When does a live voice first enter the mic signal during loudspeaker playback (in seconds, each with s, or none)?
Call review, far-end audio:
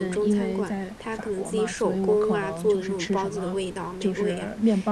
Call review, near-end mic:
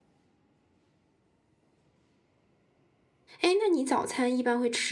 3.4 s